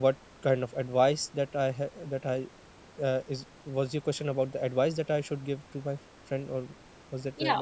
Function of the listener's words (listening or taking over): taking over